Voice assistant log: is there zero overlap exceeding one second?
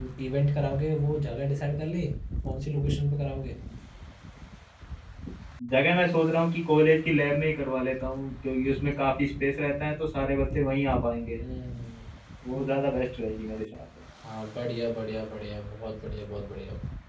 Yes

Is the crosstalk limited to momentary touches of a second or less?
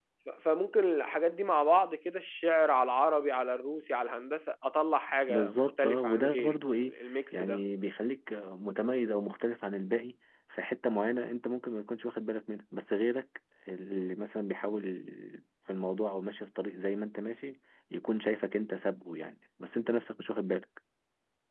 No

